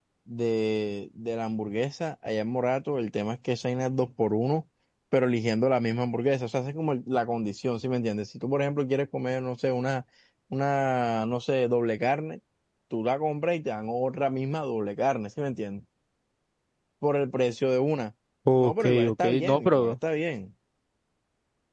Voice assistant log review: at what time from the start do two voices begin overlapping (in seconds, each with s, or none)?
18.6 s